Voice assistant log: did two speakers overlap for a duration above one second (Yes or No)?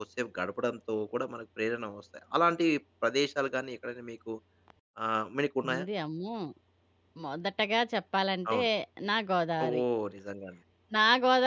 No